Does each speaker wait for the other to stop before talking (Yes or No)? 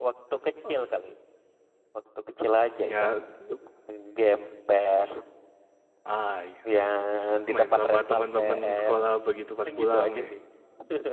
No